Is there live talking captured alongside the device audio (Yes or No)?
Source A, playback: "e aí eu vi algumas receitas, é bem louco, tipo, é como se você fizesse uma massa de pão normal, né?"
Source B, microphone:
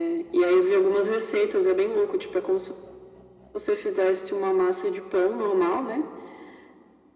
No